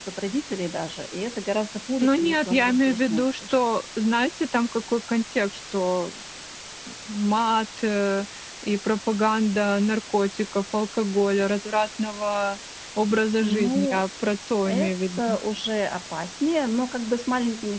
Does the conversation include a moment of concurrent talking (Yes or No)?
Yes